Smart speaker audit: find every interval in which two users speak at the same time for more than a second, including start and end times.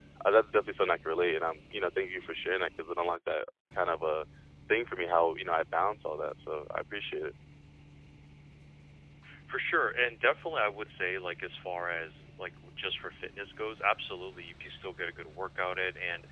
none

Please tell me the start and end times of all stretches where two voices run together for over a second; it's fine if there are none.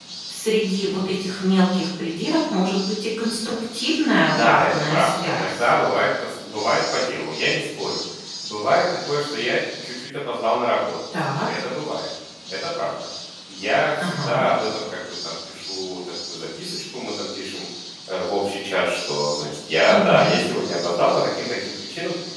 4.4-5.7

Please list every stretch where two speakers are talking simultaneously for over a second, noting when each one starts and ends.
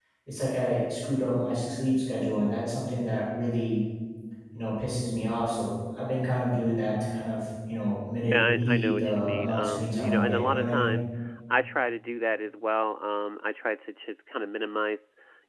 8.3-10.9

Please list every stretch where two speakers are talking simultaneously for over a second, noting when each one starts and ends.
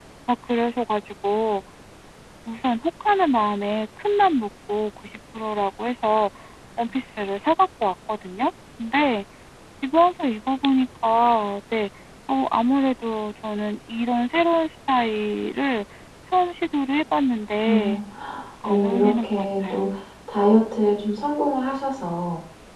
18.6-19.9

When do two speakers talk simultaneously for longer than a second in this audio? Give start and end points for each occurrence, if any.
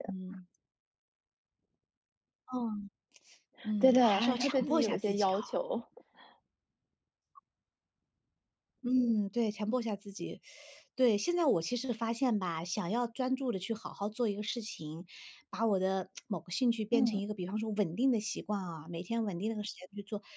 3.8-5.5

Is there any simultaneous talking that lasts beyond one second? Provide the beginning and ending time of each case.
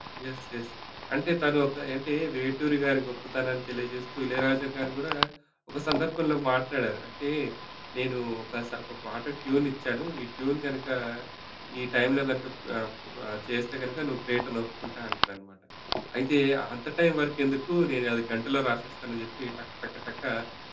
none

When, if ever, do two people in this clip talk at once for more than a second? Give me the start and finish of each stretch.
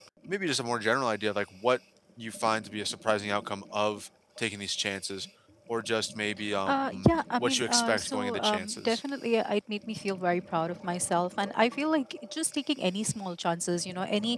7.4-9.0

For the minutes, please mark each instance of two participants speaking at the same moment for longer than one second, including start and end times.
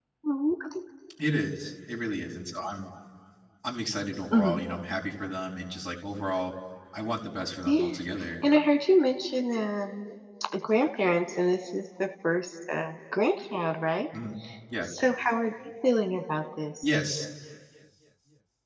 none

